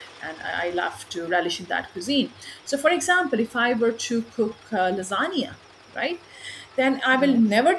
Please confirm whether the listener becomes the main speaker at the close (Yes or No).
No